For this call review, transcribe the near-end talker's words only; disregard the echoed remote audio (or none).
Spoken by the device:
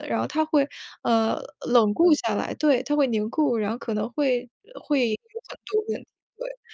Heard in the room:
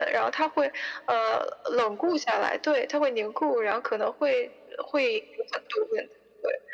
none